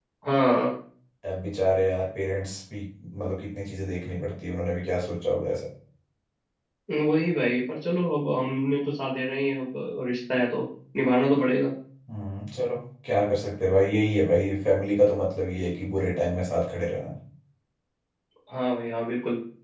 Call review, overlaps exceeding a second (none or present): none